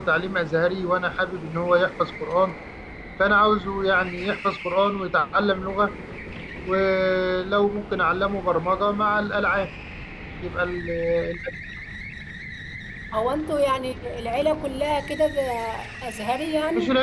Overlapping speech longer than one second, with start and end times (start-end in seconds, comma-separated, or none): none